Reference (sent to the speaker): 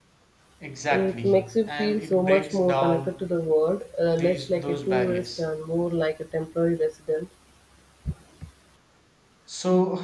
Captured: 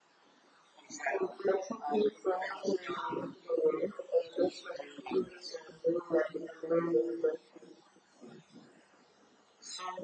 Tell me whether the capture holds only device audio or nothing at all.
Yes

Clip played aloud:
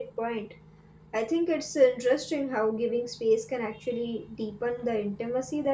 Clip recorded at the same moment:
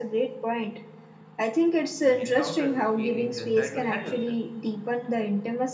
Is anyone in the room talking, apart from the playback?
Yes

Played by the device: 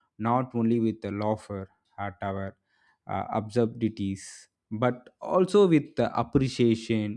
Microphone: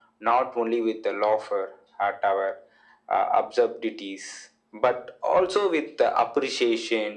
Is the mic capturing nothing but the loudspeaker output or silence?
Yes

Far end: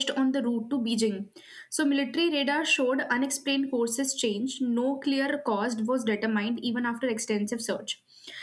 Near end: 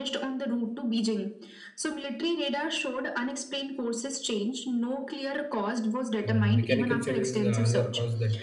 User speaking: Yes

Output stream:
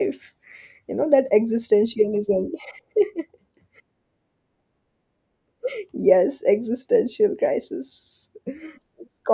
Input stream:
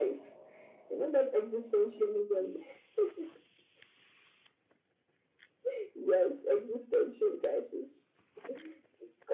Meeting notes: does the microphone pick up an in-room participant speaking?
No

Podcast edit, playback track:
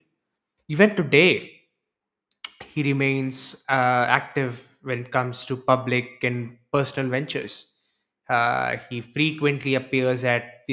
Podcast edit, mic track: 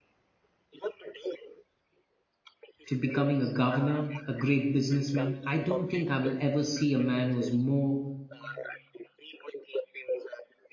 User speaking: Yes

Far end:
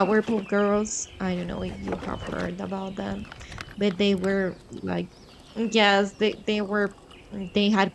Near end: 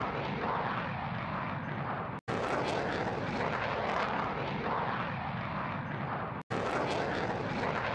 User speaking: No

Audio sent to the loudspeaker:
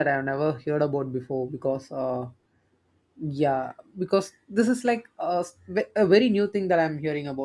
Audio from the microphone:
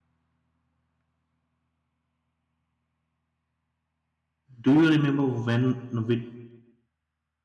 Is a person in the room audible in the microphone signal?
Yes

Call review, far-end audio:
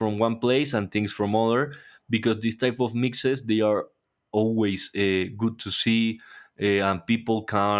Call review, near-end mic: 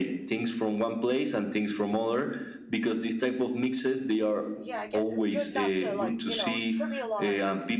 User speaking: Yes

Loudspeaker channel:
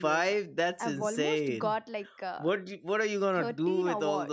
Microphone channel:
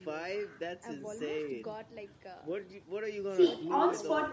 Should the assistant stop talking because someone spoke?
Yes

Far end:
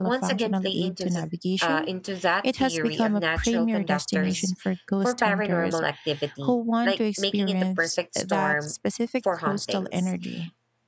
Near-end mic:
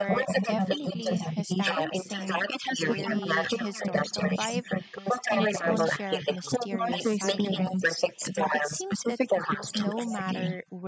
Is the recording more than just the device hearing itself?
Yes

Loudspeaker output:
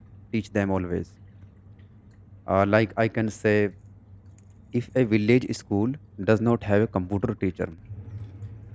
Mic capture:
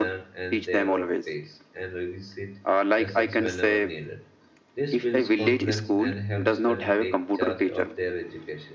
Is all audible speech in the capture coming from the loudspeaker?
No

